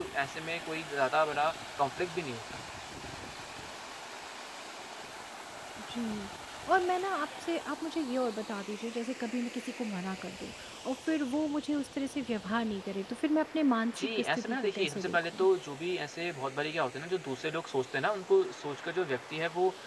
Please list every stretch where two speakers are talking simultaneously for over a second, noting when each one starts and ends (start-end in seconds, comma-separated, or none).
14.0-15.5